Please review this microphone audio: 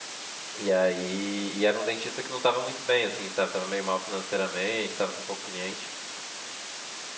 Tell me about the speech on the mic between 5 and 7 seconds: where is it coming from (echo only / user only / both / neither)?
user only